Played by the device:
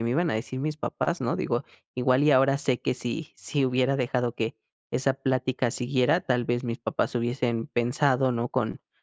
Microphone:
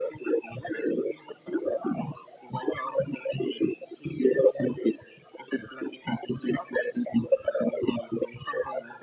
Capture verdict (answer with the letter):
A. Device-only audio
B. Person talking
A